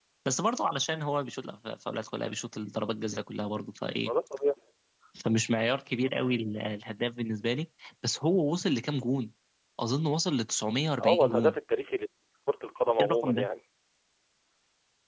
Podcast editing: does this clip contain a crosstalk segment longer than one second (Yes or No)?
No